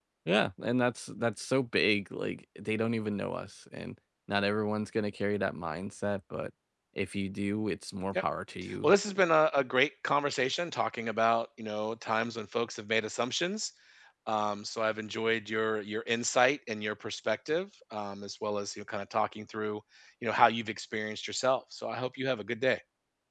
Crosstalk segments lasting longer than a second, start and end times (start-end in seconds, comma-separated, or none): none